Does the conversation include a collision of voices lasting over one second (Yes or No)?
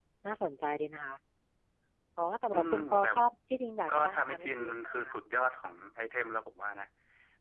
Yes